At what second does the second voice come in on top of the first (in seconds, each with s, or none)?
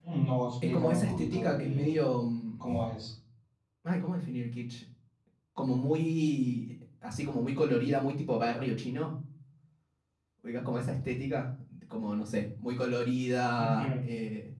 0.6 s